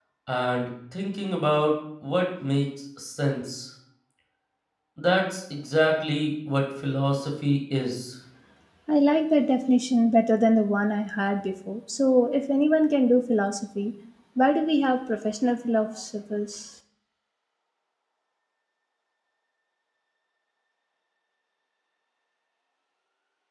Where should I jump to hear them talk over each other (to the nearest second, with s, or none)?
none